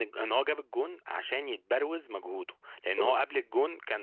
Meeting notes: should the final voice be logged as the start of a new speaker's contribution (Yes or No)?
No